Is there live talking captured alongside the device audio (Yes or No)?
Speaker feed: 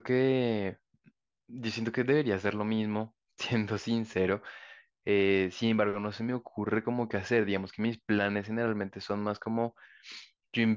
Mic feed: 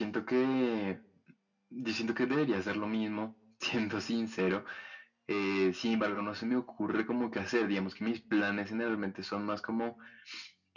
No